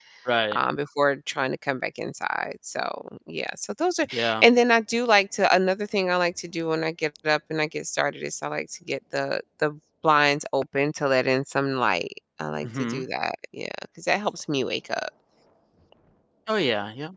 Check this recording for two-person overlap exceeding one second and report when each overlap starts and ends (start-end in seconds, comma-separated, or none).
none